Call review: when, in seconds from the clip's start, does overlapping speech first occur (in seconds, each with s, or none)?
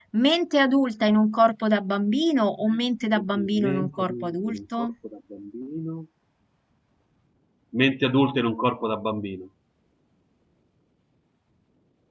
3.2 s